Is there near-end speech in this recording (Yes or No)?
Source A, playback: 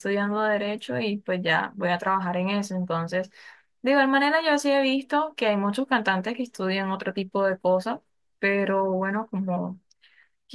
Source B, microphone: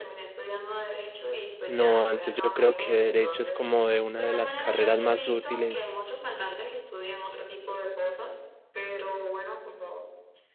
Yes